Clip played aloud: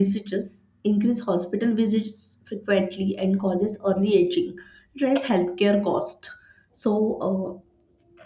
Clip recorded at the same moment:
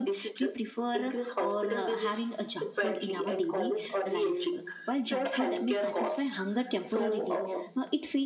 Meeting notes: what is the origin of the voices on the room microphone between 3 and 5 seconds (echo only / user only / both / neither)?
both